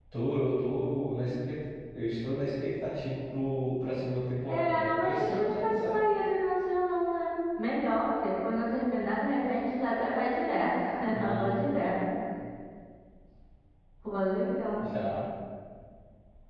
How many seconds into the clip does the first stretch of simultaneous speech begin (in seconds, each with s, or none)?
4.5 s